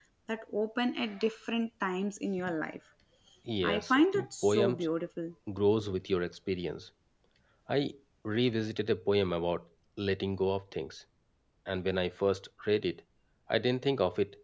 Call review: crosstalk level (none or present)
present